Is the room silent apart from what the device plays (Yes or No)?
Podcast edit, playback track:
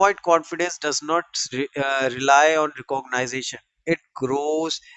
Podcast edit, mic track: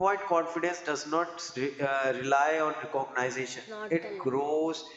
No